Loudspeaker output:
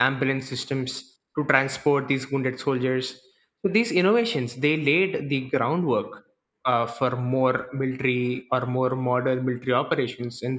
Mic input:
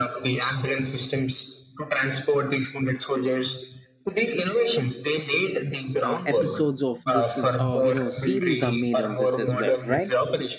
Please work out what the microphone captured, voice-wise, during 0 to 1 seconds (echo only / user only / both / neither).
echo only